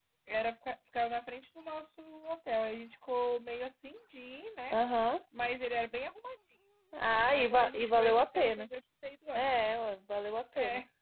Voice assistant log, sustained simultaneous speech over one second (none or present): present